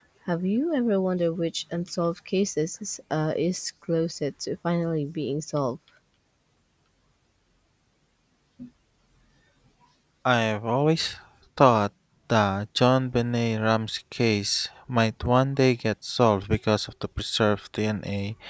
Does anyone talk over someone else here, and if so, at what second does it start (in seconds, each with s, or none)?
none